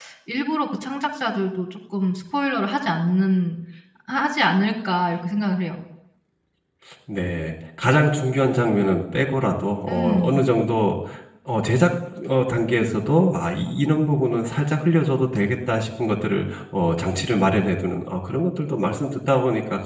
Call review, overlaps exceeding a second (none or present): none